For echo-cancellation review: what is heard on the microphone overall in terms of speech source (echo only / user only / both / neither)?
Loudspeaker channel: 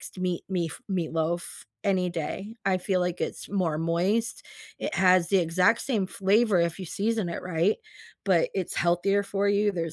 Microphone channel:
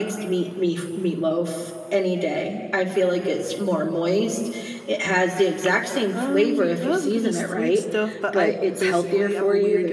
both